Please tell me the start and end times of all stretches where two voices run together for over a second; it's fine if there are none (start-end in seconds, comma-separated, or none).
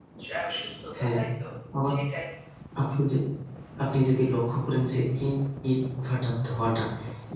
none